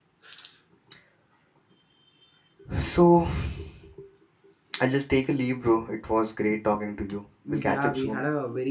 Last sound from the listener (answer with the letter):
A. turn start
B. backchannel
A